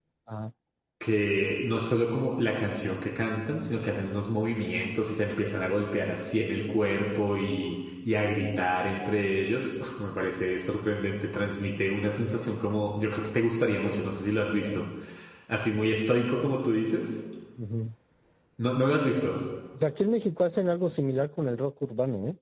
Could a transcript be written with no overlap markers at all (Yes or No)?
Yes